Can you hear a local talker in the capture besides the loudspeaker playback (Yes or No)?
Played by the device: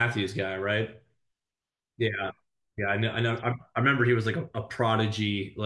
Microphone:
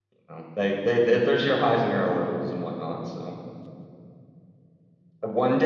Yes